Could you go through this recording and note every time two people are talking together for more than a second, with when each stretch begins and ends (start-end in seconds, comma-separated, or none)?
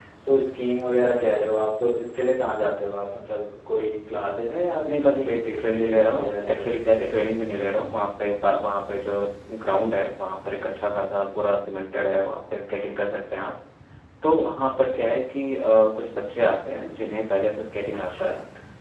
4.9-7.0